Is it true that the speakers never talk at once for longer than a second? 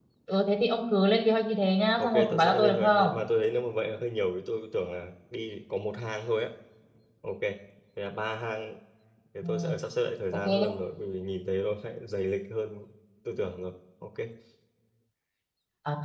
No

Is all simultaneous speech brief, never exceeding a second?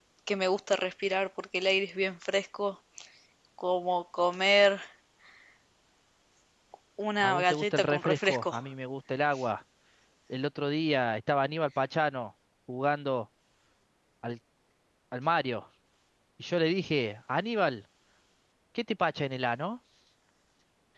No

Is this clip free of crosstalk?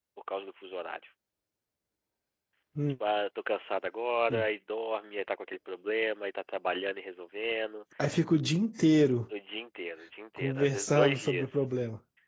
No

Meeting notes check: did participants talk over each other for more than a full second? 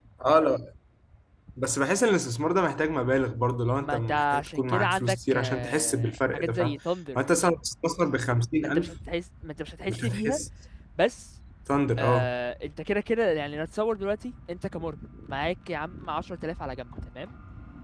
Yes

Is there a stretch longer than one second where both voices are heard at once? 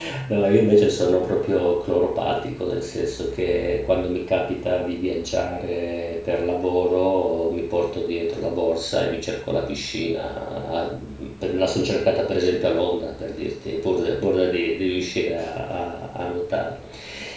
No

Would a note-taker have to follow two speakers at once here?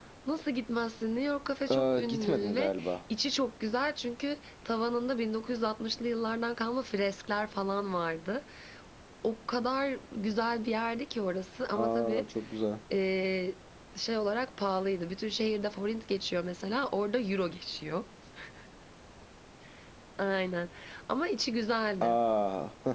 Yes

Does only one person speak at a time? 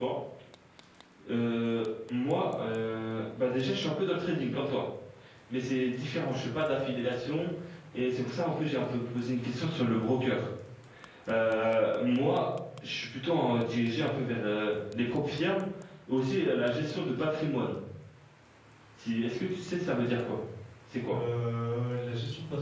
Yes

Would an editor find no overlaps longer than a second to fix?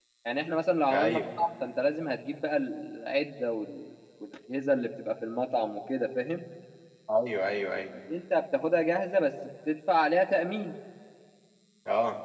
Yes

